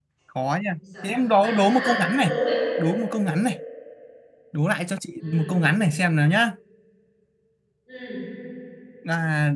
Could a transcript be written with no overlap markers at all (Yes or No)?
No